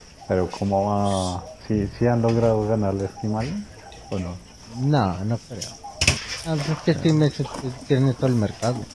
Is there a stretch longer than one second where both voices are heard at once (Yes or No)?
No